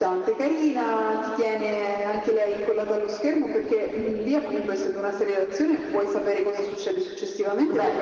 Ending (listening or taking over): listening